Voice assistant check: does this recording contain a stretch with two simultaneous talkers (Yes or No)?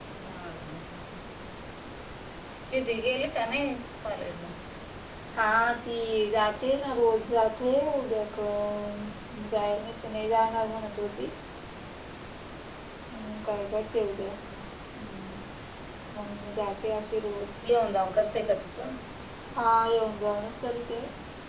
No